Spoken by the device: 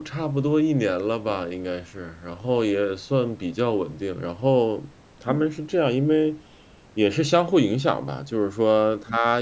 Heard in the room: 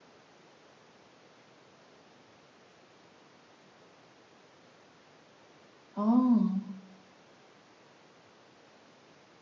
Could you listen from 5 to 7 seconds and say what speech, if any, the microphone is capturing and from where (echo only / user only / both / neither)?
user only